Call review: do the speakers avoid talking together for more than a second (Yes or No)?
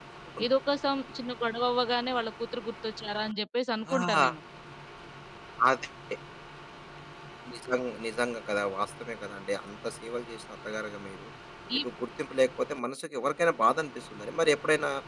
Yes